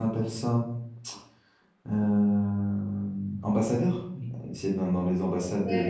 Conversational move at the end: taking over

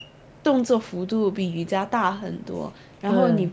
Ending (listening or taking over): listening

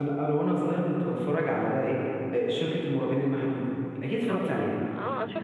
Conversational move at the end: taking over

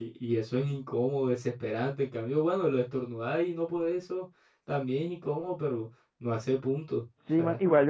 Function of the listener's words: taking over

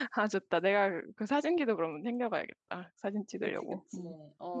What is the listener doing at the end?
taking over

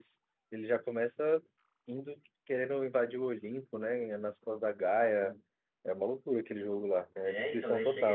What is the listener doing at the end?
taking over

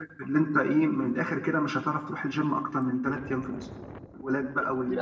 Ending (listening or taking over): listening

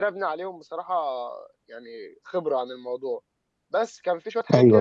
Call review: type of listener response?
listening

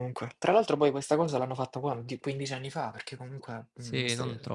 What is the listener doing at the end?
taking over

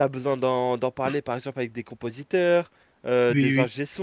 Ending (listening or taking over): listening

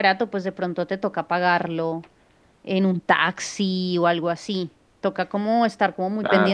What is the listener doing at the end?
listening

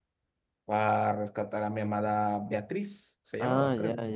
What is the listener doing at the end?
taking over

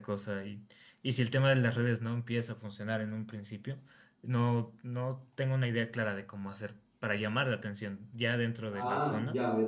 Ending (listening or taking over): taking over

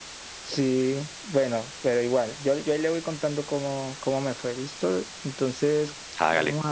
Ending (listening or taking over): listening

